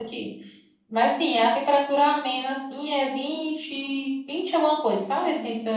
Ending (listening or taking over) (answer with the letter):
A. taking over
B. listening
B